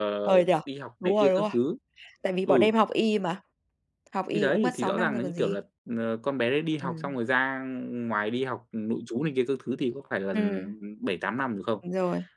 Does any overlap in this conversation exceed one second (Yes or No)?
Yes